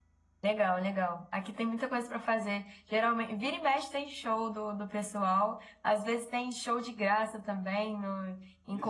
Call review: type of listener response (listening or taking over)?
taking over